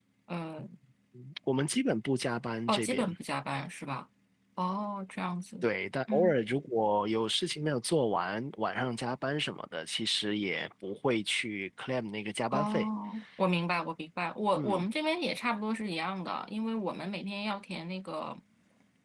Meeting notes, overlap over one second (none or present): none